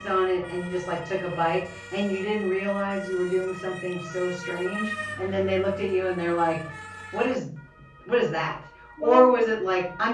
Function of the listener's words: listening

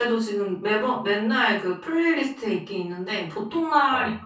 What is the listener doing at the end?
listening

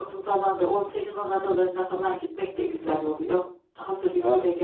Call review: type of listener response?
taking over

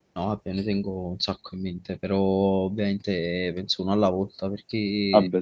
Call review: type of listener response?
listening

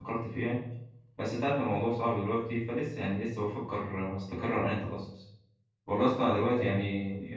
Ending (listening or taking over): listening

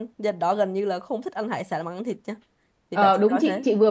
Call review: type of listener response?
taking over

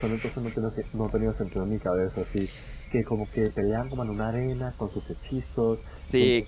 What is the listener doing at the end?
taking over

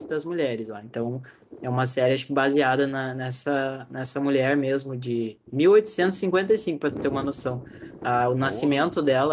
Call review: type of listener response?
listening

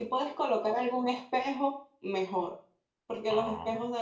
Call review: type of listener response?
listening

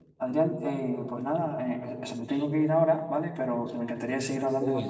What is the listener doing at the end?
taking over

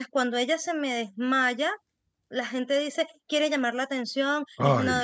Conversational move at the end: listening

